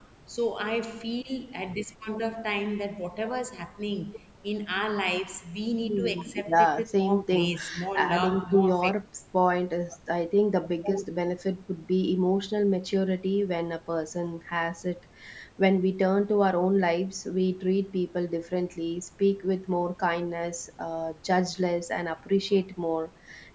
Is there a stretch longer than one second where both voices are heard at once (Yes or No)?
Yes